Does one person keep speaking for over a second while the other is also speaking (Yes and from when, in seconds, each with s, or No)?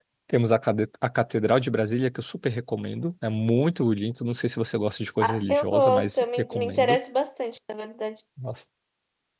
Yes, from 5.2 s